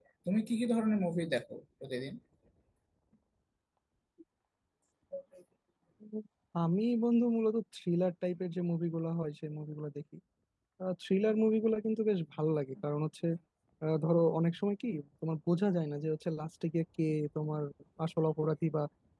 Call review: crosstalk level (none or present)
none